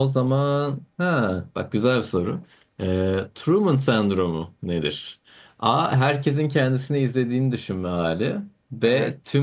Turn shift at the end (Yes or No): No